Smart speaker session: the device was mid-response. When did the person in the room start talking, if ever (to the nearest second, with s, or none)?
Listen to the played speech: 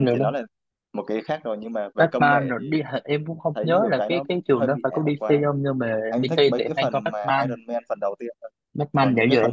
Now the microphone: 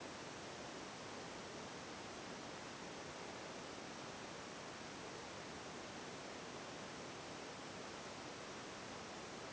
none